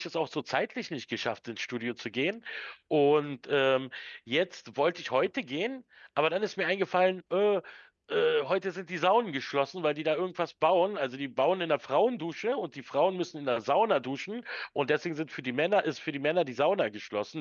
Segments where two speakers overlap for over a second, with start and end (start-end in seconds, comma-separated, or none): none